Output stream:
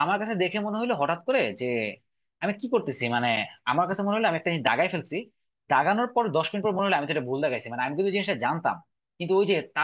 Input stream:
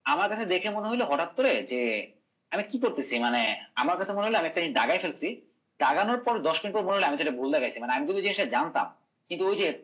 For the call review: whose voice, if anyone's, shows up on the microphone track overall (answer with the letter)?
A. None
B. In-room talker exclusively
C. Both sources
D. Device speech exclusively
D